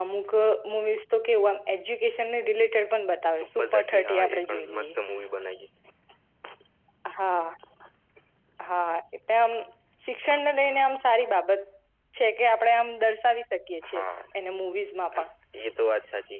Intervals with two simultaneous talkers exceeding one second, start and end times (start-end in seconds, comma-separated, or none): 3.6-4.9